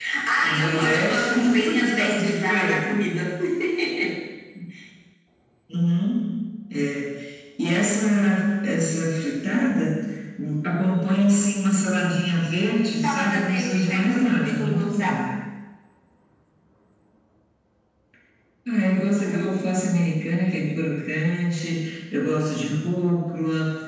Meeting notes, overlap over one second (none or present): present